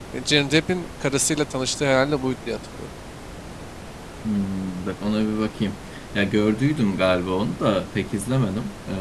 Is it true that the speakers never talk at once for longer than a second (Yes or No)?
Yes